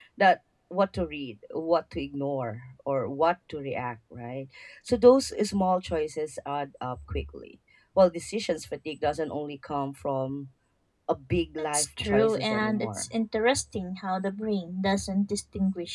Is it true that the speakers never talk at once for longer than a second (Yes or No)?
No